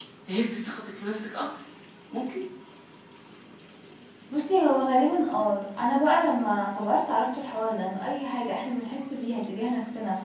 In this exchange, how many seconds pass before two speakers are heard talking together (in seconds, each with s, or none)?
none